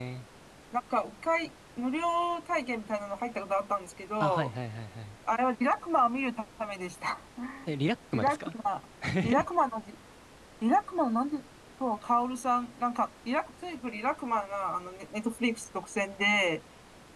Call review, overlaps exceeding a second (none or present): none